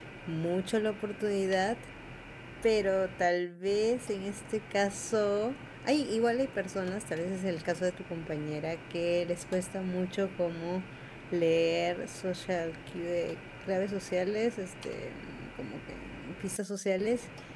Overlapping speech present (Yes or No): No